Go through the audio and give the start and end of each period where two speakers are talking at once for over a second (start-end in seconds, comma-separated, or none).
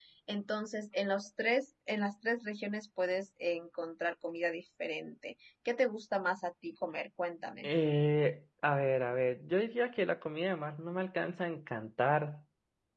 none